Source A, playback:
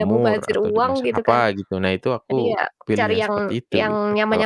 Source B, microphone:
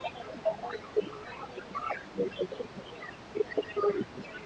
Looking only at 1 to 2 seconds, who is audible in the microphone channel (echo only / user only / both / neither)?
echo only